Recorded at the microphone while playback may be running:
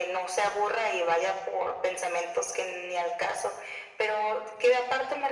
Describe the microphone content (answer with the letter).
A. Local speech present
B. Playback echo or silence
B